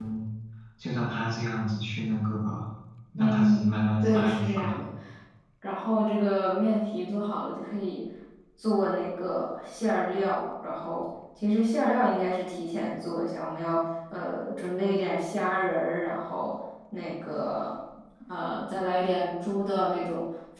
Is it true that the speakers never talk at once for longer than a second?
No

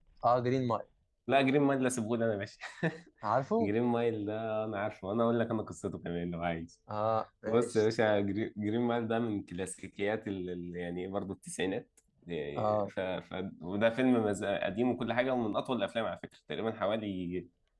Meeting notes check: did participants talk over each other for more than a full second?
No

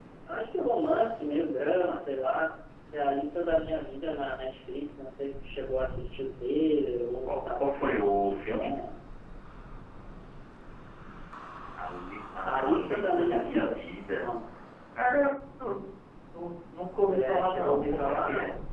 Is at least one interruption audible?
Yes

